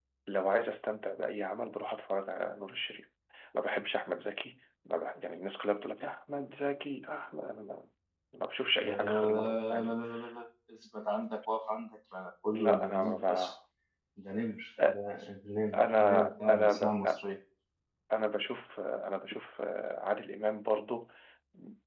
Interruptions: present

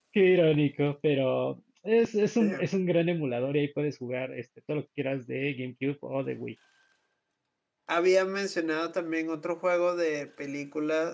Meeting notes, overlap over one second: none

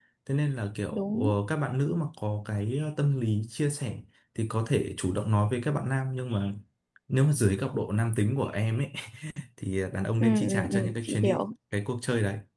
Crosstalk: present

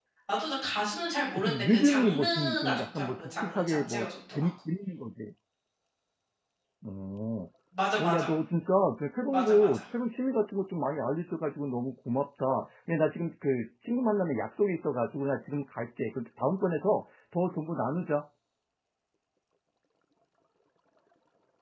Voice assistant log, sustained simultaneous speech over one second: present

